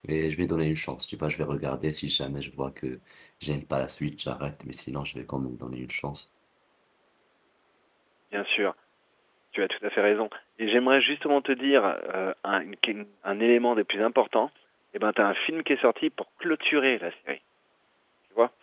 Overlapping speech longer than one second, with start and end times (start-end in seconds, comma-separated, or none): none